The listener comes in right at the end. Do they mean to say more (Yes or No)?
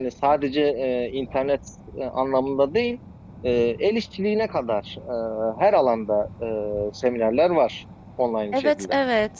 Yes